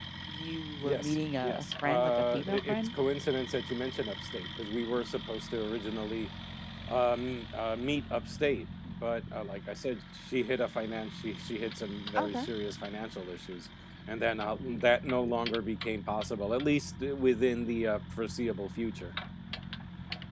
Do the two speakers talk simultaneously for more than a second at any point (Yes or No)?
Yes